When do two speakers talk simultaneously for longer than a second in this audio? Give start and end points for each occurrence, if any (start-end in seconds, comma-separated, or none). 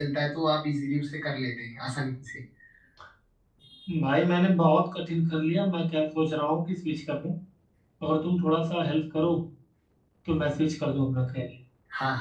none